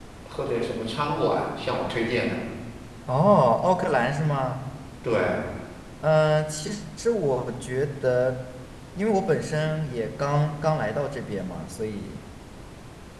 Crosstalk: none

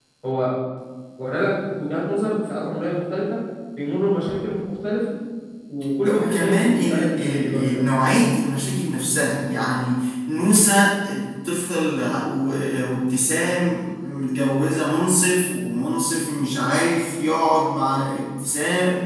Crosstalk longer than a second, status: present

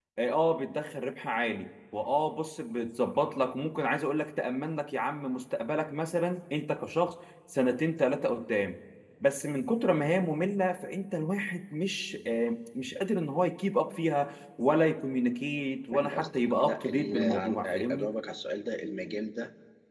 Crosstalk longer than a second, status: present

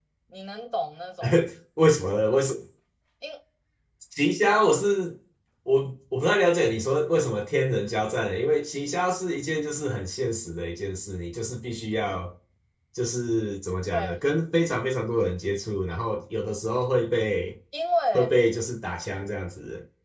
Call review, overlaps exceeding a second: none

